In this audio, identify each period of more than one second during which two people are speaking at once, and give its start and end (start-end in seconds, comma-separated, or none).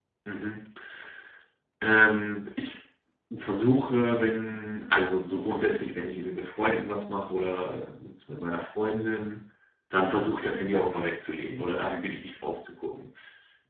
10.7-12.0